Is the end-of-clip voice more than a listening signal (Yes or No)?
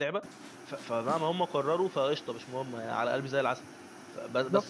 Yes